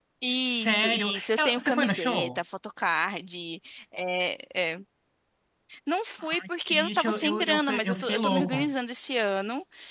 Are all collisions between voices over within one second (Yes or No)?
No